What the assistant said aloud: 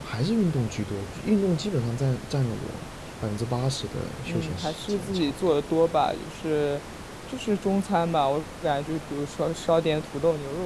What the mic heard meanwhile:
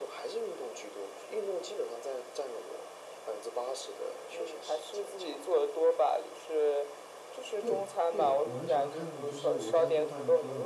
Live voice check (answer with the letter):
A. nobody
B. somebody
B